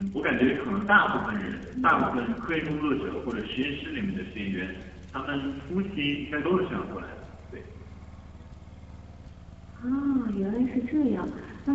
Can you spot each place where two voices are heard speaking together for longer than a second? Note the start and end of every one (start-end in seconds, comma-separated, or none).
none